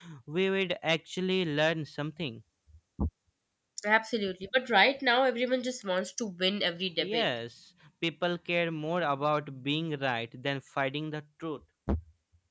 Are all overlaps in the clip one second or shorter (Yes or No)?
Yes